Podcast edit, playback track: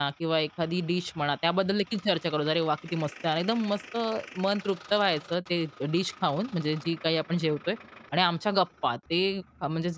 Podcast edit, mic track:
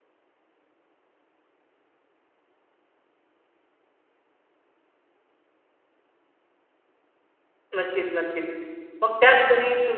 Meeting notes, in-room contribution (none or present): present